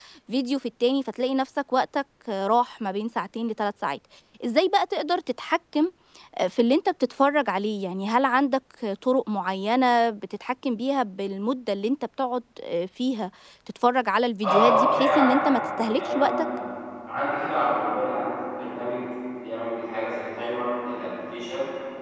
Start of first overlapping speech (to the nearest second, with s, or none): 14 s